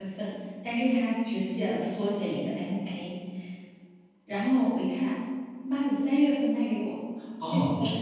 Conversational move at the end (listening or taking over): taking over